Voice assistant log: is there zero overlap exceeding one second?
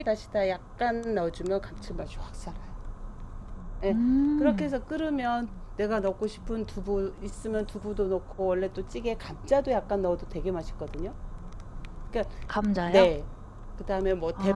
Yes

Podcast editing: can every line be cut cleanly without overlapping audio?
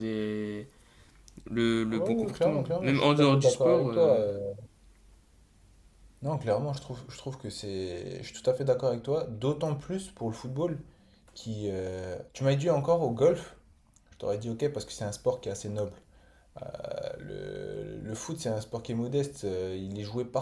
No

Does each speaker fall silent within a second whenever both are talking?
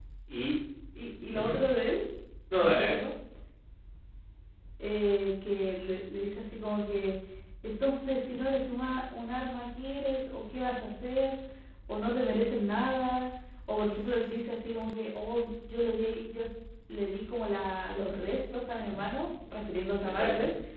Yes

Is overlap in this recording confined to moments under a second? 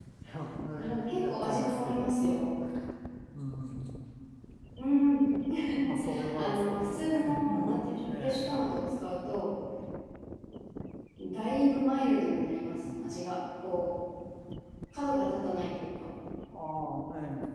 No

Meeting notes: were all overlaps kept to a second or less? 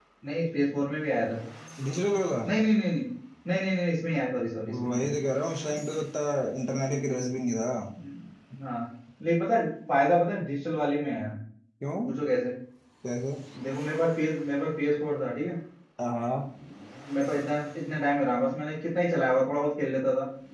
Yes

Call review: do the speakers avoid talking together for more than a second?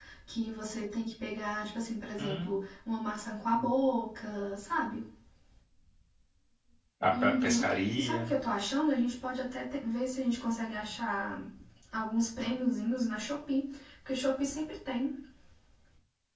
No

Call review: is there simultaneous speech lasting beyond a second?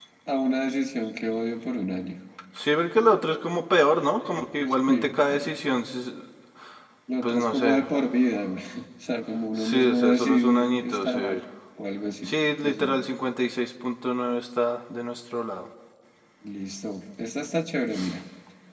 Yes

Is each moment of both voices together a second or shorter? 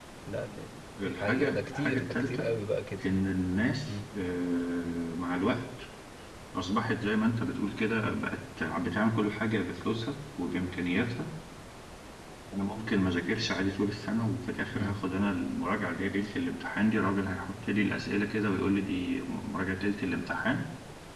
No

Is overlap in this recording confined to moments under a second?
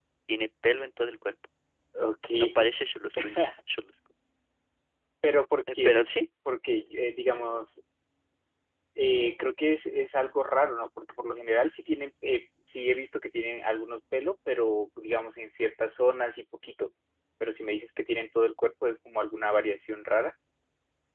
Yes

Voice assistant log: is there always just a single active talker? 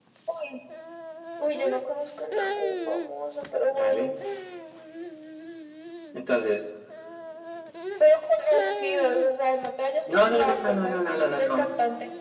No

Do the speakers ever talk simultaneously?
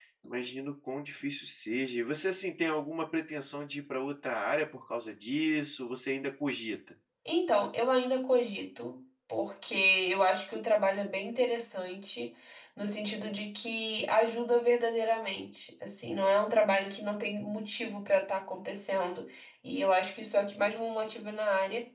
No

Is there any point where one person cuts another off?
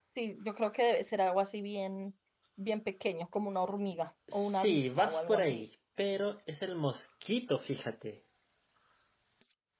Yes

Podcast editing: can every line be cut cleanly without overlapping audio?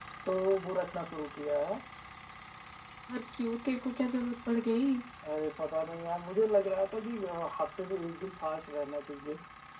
Yes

